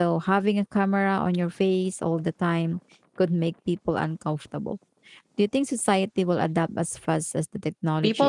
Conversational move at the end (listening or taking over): taking over